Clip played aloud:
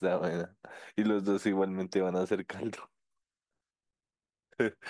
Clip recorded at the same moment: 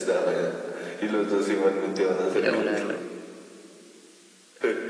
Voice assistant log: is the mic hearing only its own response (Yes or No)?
No